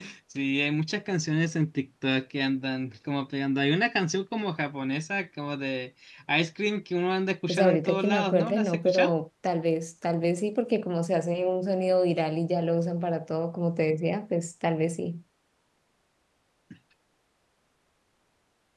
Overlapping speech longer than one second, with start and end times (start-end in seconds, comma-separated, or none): 7.5-9.1